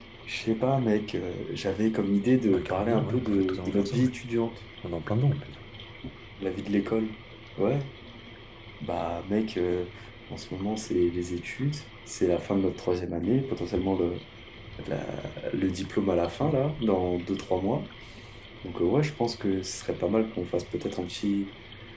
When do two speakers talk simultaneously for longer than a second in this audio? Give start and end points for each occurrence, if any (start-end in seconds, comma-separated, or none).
2.5-4.1